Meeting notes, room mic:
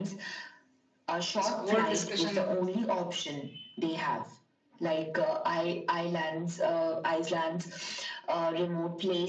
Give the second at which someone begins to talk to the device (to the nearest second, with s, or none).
1 s